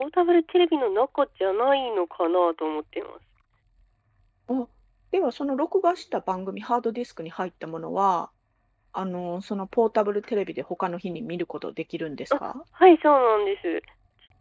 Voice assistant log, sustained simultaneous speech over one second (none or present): none